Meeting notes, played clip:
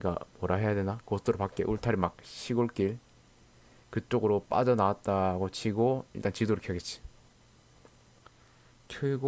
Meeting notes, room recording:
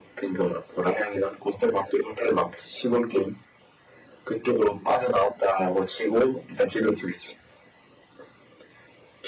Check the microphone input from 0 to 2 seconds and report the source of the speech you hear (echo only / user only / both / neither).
echo only